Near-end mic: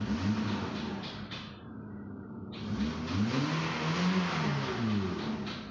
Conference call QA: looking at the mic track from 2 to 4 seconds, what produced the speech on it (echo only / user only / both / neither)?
neither